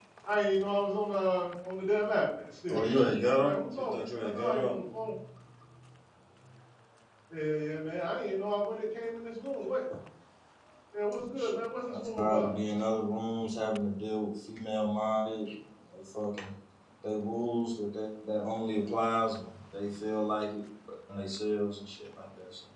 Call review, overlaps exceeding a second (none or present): present